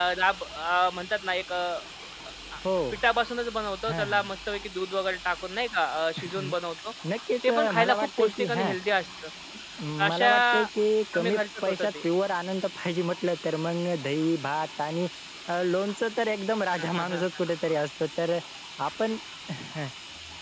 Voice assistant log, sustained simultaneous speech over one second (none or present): present